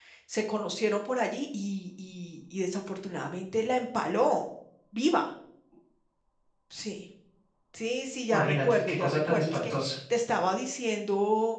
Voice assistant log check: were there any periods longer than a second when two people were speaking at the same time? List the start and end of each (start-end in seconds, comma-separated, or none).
8.3-9.7